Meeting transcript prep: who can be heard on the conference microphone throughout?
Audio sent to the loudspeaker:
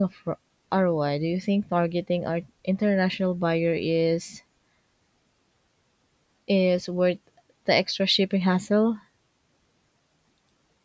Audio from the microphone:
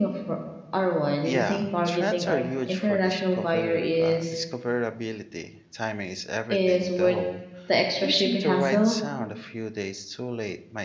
both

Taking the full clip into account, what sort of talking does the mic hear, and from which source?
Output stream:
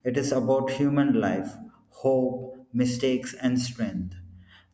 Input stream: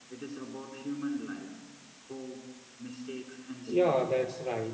both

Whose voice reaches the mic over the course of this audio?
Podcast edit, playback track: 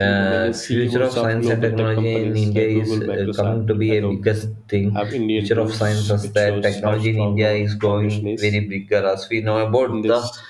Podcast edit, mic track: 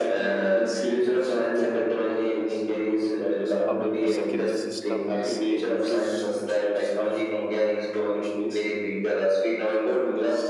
both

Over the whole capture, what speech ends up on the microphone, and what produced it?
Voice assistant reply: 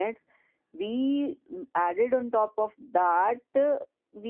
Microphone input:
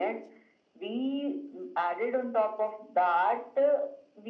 echo only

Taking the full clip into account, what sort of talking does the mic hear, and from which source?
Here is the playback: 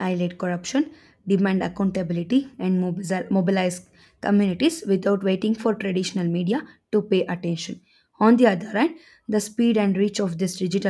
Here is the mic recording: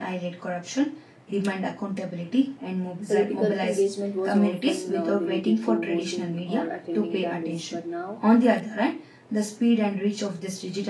both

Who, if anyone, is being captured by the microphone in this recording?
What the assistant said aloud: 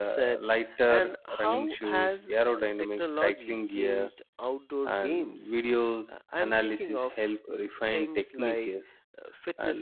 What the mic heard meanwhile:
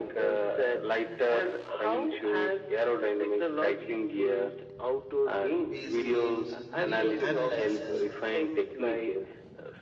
both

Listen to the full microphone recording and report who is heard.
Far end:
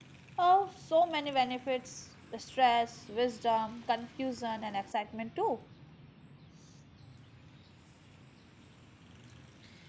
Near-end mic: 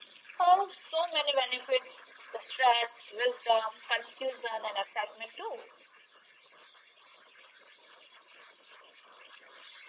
echo only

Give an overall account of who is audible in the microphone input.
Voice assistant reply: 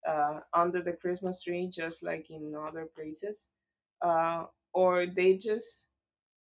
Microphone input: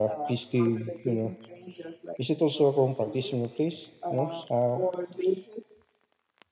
both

